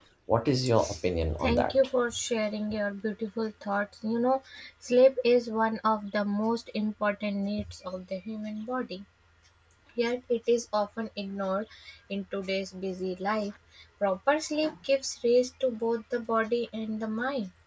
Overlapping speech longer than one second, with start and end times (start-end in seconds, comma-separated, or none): none